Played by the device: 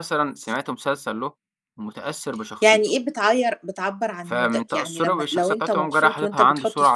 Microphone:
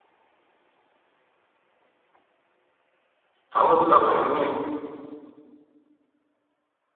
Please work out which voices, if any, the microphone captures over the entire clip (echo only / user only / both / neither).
user only